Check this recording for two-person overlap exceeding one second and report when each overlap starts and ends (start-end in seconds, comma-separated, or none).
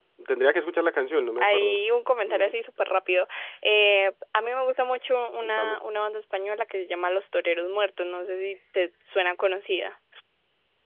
none